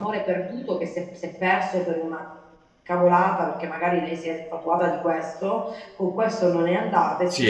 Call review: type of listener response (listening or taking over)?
listening